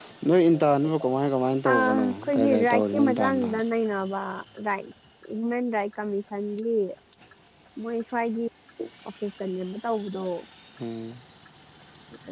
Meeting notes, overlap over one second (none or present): present